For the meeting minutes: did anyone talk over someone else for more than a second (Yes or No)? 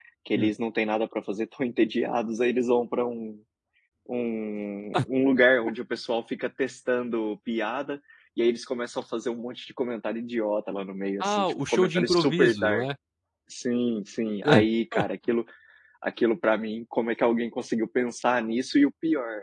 Yes